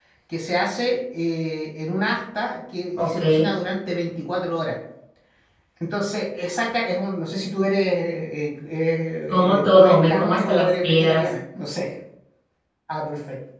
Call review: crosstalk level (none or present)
present